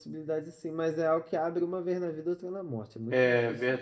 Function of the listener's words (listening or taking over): taking over